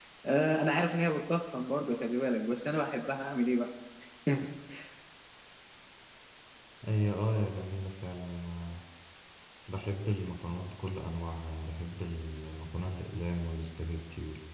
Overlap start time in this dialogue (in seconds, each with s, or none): none